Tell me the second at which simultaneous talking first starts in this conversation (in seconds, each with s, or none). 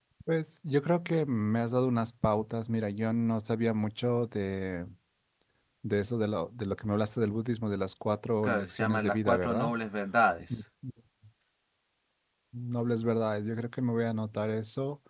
8.4 s